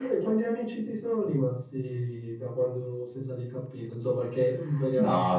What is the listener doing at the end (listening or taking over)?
taking over